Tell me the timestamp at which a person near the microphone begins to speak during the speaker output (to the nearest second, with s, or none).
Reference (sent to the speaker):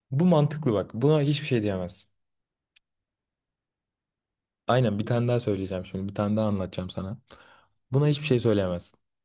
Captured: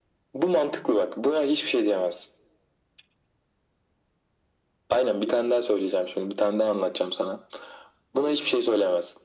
none